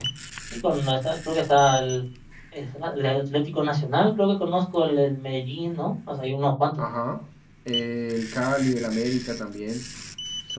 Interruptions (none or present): none